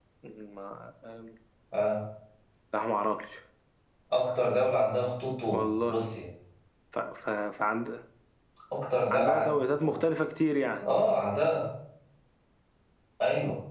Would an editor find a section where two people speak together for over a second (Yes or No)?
No